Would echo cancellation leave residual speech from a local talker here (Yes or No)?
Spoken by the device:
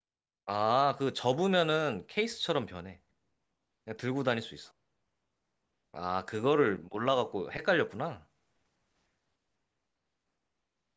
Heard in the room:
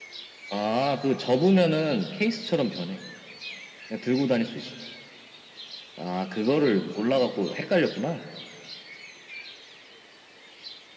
No